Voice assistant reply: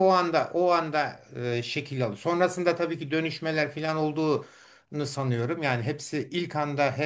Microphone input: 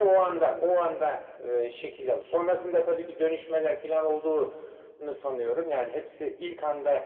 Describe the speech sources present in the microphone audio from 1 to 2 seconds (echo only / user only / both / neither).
echo only